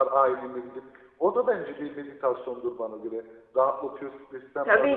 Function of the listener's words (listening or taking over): taking over